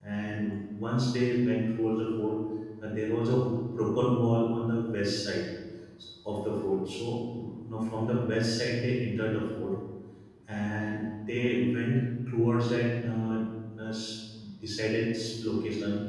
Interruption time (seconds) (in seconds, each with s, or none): none